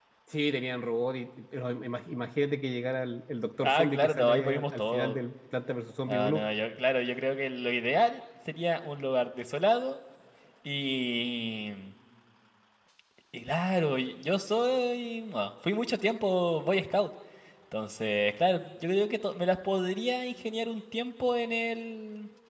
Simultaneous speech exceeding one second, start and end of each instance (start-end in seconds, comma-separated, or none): 3.6-5.2